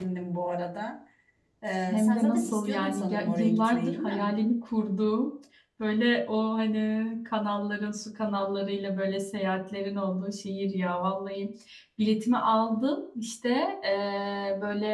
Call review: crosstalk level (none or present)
present